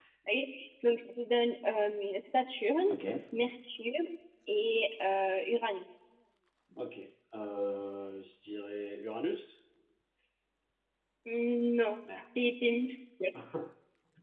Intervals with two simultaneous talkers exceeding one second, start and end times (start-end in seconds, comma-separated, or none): none